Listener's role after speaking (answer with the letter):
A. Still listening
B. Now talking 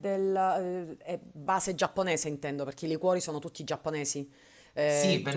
B